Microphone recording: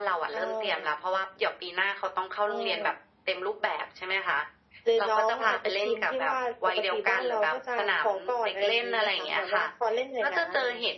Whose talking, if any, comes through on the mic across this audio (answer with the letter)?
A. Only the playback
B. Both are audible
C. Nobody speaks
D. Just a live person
A